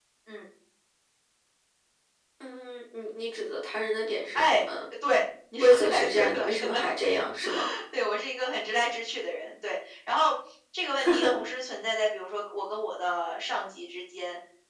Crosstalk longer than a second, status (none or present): present